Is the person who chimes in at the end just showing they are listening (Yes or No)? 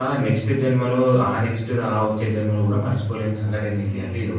No